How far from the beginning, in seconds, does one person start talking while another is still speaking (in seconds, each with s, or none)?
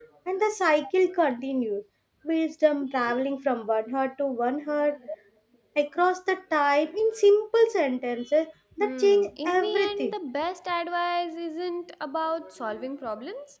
8.8 s